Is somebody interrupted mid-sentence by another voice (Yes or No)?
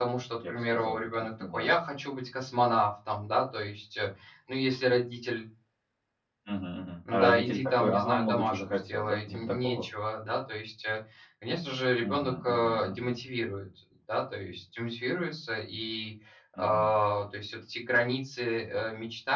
Yes